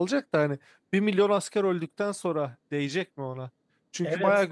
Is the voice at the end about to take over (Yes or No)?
No